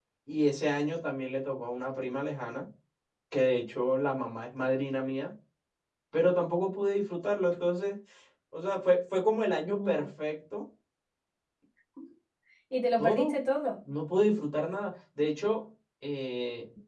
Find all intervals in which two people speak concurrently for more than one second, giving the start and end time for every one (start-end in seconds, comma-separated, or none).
none